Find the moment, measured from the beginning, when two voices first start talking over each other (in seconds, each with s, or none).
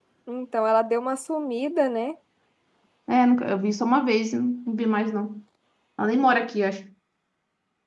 none